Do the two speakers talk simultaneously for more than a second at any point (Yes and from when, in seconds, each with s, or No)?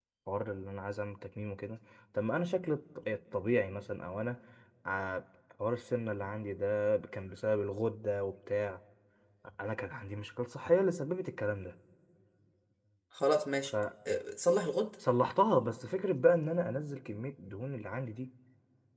No